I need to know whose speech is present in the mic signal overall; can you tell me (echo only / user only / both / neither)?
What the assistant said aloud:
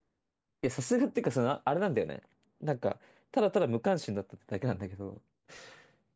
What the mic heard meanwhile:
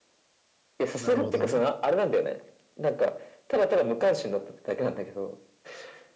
both